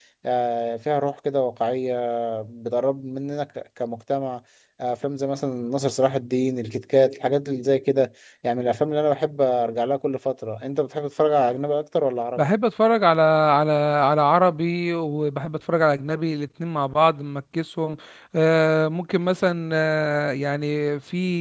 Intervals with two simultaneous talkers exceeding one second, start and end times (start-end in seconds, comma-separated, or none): none